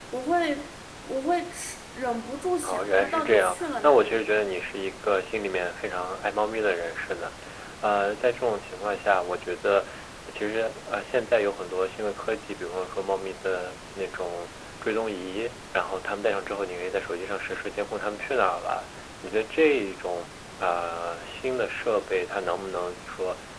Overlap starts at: 2.6 s

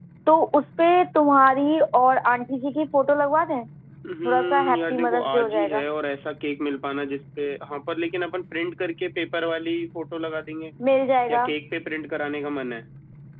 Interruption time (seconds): 4.2 s

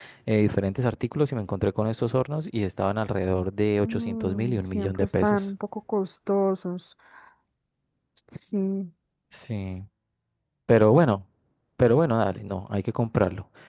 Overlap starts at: 3.8 s

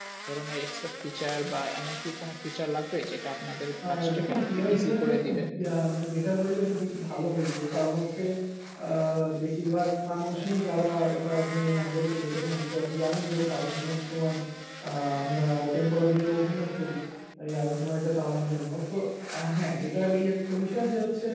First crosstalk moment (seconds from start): 3.8 s

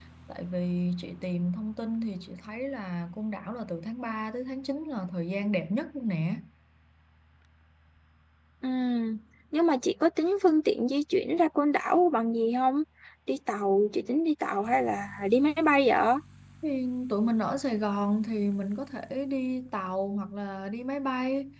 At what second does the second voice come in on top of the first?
none

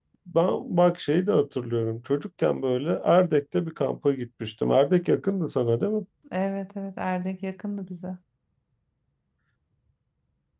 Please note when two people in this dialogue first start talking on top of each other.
none

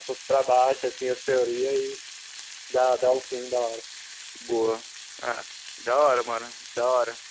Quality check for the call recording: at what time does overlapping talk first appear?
none

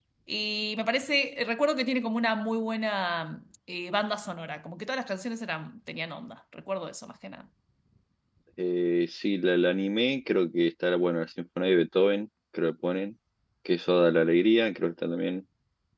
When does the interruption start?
none

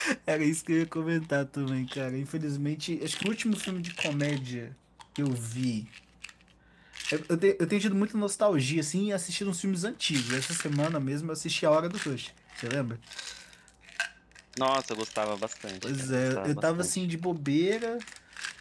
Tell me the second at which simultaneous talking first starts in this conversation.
15.8 s

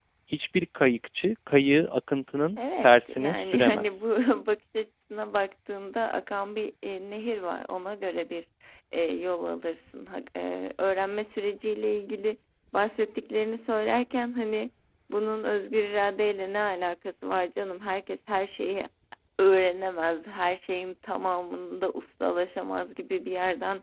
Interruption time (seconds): 2.6 s

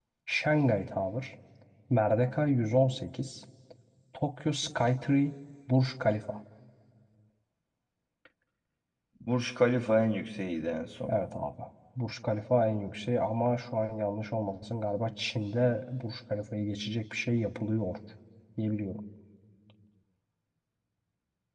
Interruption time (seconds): none

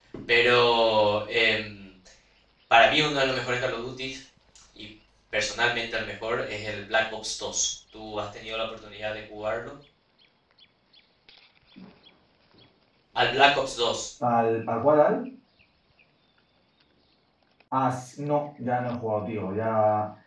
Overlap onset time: none

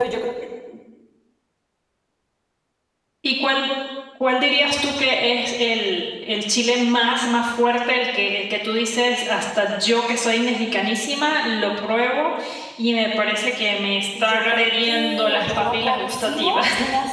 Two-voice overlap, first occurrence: 14.2 s

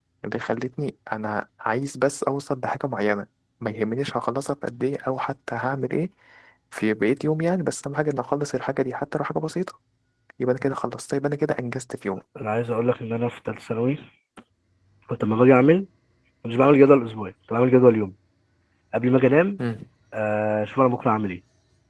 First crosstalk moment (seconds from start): none

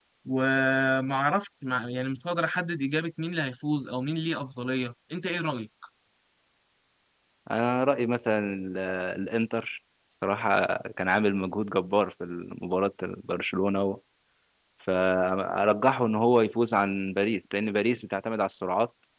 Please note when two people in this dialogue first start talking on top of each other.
none

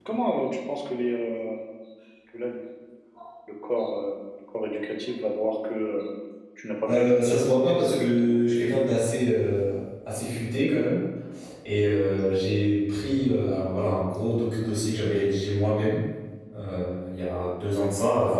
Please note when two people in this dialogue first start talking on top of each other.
6.9 s

